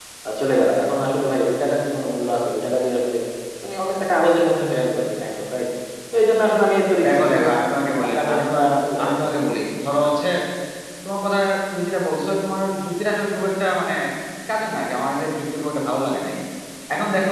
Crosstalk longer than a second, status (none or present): present